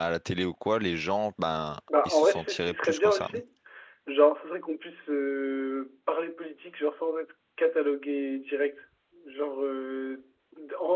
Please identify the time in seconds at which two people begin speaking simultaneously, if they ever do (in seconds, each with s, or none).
1.9 s